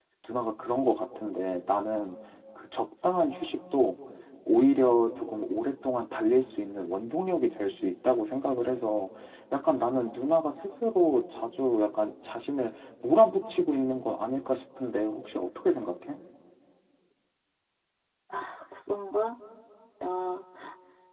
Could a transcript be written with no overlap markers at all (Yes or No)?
Yes